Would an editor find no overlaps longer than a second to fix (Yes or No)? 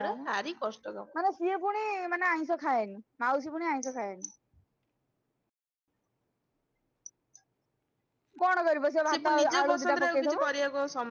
No